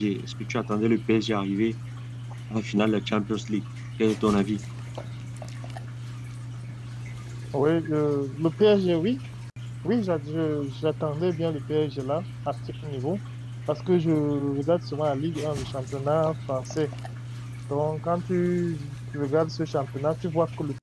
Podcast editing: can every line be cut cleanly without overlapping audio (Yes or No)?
Yes